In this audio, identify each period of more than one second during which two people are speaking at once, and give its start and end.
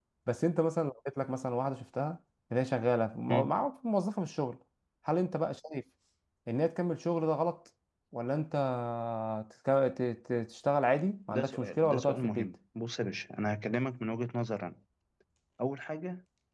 11.3-12.5

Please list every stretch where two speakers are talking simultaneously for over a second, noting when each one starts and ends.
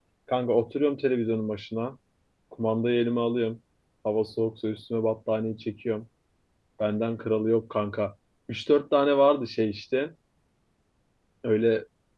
none

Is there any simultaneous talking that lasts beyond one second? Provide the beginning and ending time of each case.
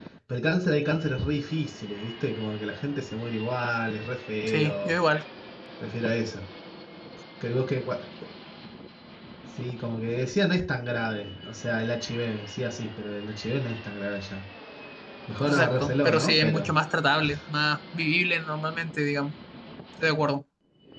15.4-16.7

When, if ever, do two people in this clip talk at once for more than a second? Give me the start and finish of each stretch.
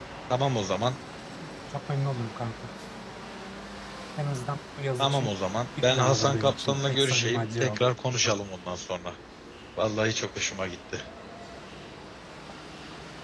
5.8-7.9

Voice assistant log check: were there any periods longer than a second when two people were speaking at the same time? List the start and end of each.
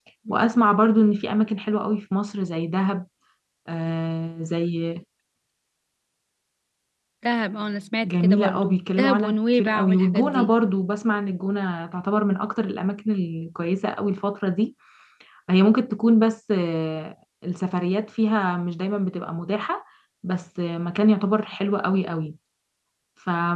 8.0-10.5

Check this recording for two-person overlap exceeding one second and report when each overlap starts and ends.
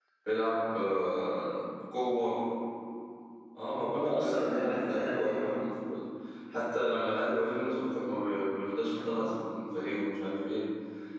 3.9-5.5

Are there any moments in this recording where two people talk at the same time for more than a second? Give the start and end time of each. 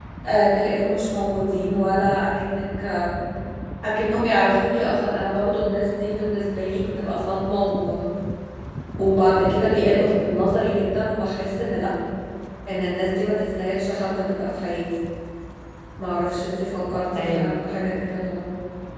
none

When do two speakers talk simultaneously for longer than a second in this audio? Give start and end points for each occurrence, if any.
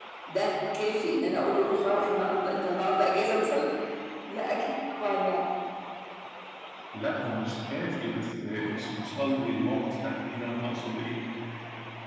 none

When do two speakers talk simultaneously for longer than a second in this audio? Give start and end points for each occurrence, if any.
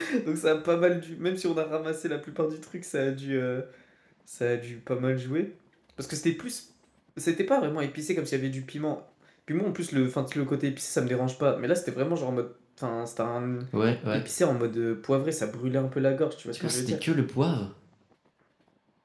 none

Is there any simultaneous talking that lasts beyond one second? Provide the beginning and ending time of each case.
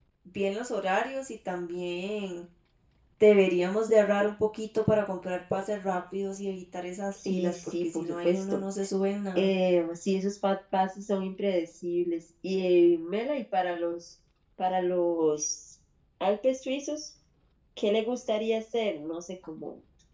7.2-8.6

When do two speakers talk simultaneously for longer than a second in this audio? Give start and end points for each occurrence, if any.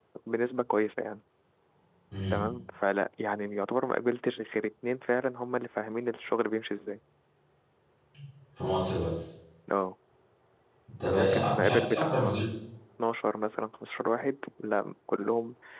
11.1-12.4

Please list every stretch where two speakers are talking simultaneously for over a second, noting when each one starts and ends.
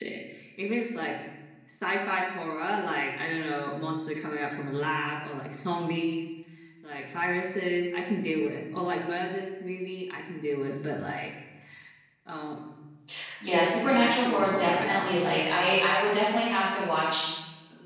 13.8-15.1

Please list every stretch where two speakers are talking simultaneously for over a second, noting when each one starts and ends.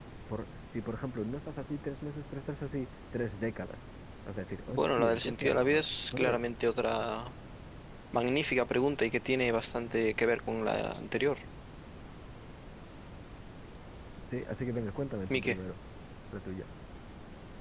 4.7-6.4

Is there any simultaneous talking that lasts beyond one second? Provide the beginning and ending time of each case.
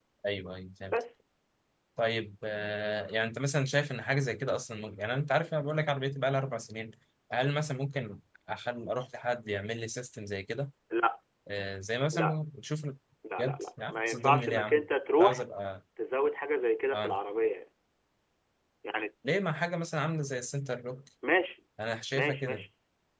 13.4-14.7

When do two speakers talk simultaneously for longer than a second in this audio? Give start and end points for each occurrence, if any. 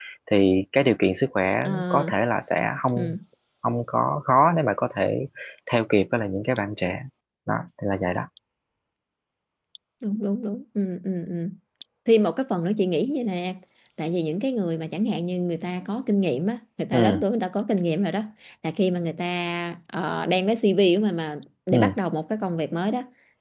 none

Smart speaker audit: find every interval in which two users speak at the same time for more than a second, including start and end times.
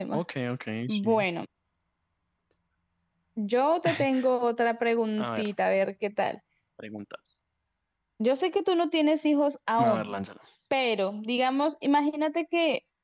none

